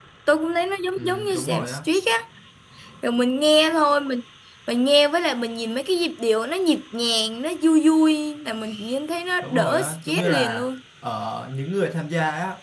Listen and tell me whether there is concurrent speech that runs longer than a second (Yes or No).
Yes